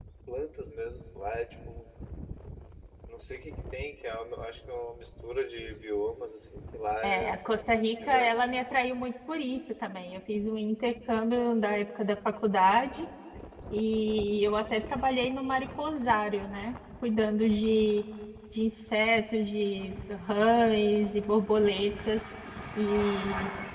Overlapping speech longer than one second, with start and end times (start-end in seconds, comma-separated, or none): 7.0-8.4